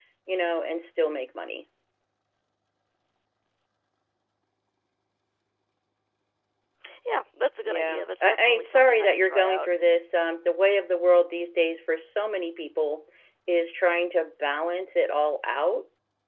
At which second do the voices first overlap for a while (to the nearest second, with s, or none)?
8 s